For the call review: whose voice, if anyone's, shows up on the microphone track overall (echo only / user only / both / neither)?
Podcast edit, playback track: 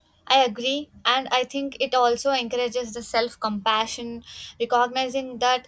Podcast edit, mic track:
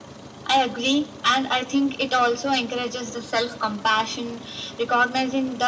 echo only